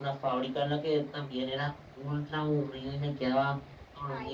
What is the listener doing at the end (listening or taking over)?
listening